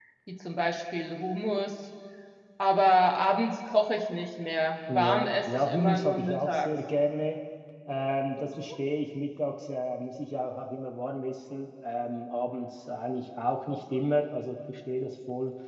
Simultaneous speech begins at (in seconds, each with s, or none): 4.9 s